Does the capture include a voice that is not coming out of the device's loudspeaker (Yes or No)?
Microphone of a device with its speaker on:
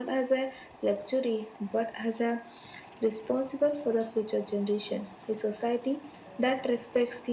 No